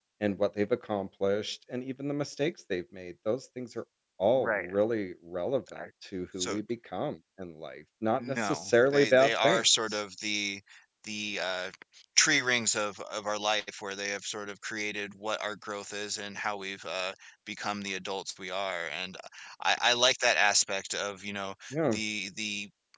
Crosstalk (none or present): present